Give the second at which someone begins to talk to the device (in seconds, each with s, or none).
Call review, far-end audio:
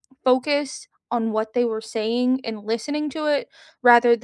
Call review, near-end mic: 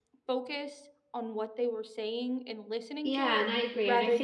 3.0 s